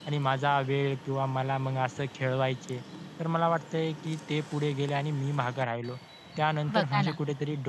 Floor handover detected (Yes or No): No